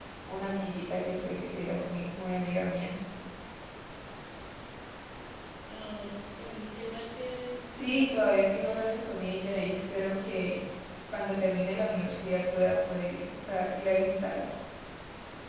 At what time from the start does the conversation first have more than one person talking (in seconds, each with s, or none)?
7.7 s